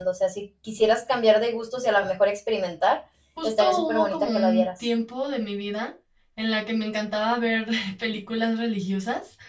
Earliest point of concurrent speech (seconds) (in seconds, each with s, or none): 3.4 s